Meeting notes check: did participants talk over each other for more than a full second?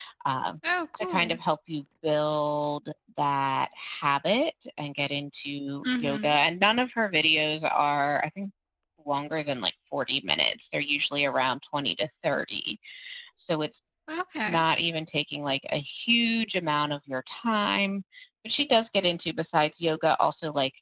No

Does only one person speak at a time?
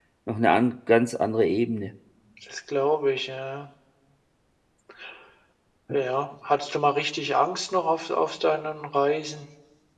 Yes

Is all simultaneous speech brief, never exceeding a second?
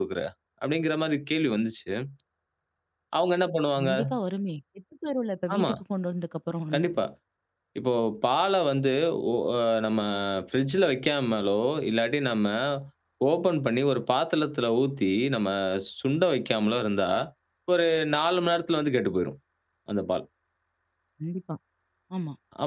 Yes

